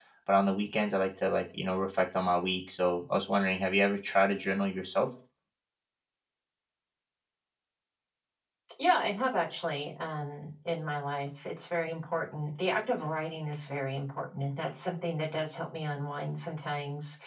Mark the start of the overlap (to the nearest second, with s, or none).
none